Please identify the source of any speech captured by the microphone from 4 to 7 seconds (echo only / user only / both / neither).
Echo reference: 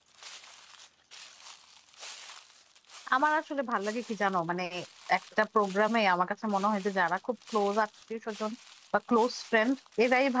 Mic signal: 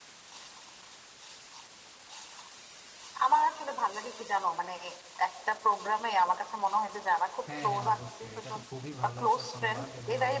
echo only